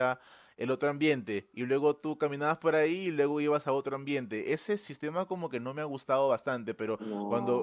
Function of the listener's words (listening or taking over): listening